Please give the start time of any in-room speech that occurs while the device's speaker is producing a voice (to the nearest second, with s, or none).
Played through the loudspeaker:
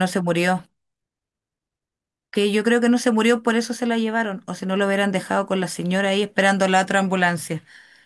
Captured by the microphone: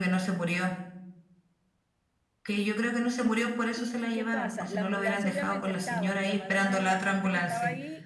4 s